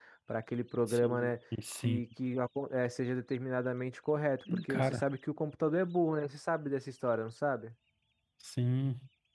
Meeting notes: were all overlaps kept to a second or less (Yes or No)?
Yes